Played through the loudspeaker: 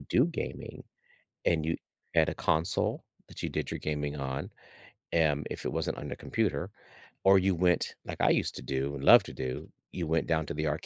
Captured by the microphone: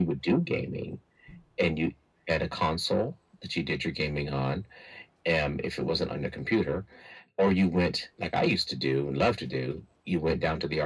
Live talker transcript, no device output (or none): none